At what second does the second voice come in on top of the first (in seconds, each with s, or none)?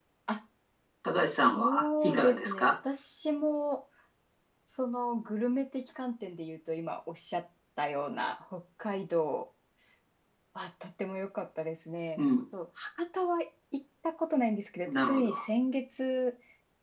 1.2 s